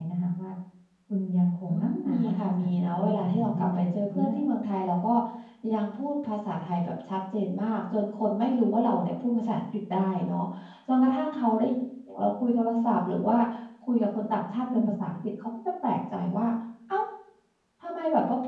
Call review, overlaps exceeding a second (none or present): present